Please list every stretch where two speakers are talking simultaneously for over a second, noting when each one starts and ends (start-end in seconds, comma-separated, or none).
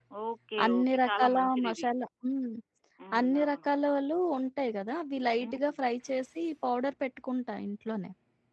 0.6-1.9